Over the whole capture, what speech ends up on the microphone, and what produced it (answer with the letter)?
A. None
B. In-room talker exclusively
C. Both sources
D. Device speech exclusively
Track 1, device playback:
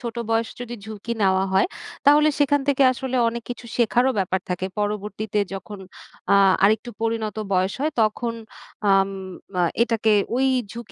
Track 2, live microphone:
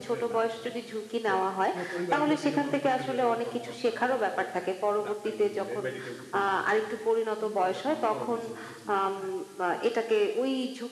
C